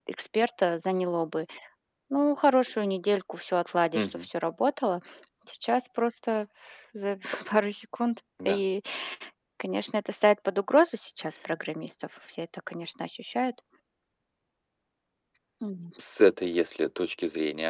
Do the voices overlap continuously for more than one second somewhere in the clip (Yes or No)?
No